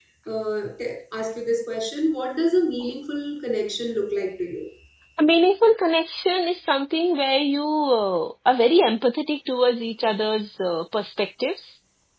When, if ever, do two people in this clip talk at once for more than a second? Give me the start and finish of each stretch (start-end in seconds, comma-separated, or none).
none